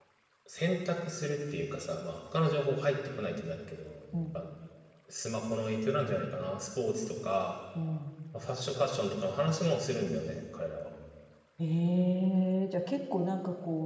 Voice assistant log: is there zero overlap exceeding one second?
Yes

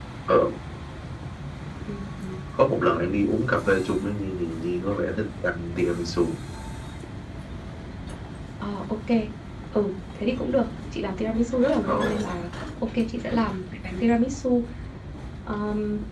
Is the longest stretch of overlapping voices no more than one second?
Yes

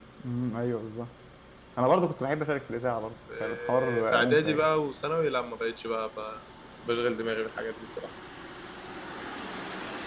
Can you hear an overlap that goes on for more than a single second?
Yes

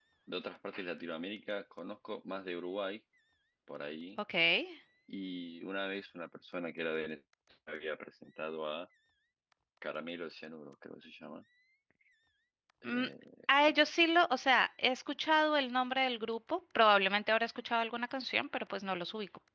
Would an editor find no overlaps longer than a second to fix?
Yes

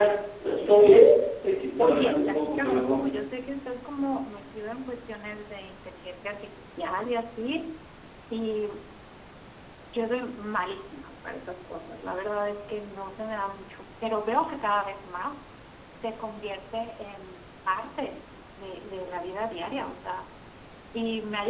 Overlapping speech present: Yes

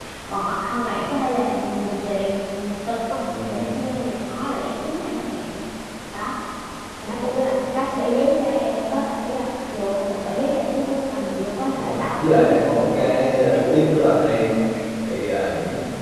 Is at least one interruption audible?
Yes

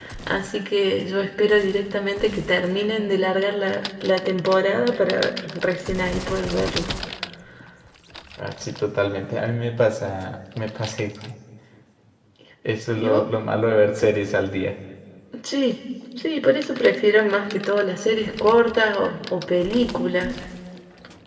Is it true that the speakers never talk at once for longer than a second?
Yes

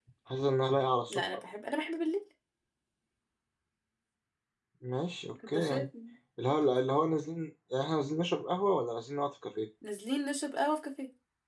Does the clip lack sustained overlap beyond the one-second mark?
Yes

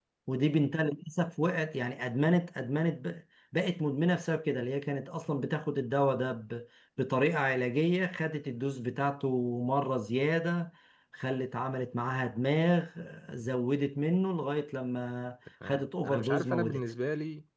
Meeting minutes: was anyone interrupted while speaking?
Yes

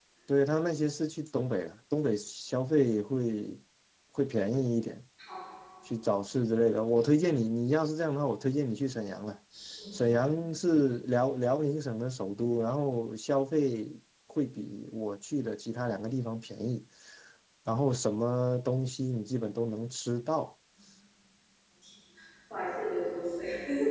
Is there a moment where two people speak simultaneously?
No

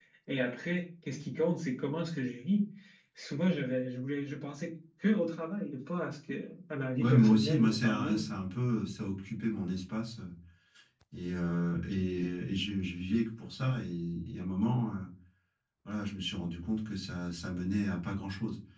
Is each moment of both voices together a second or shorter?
No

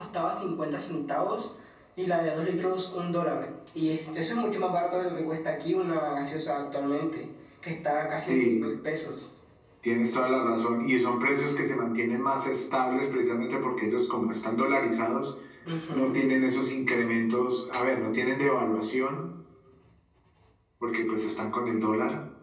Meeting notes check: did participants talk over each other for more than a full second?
No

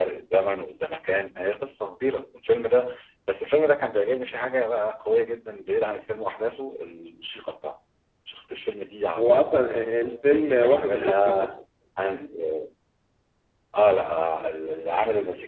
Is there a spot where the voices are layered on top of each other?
Yes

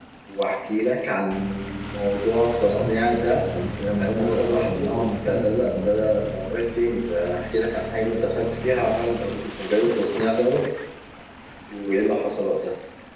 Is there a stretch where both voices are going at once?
Yes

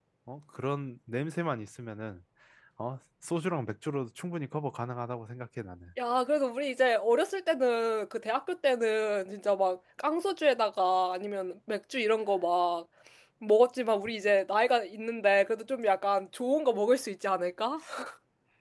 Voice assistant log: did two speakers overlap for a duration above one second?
No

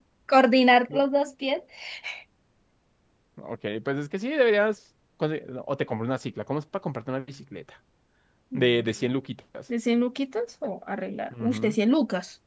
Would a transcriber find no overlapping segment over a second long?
Yes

